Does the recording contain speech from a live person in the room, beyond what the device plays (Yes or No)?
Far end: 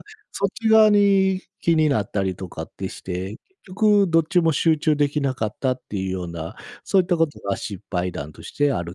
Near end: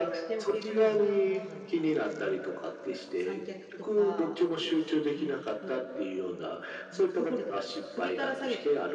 Yes